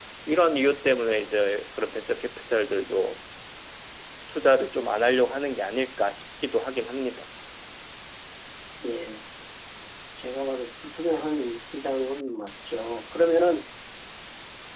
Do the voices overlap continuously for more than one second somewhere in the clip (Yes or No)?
No